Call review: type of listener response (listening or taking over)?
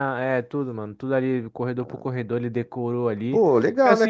taking over